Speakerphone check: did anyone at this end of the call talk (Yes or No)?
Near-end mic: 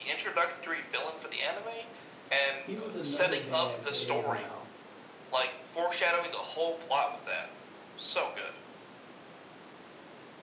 Yes